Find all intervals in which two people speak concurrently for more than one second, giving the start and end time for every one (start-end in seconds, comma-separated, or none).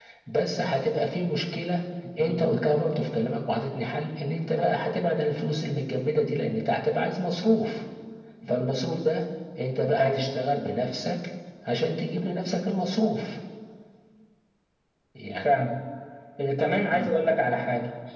none